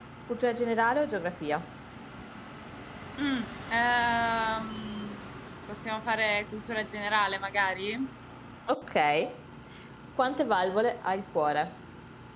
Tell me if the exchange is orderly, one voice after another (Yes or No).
Yes